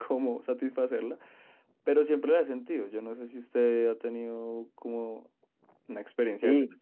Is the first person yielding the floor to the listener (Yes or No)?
Yes